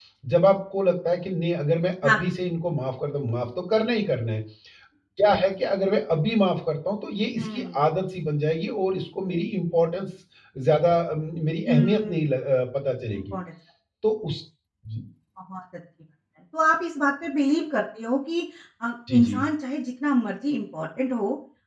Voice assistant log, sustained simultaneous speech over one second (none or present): none